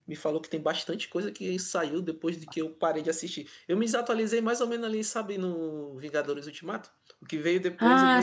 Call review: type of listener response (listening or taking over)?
listening